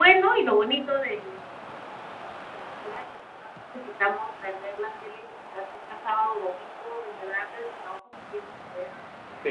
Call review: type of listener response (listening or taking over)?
taking over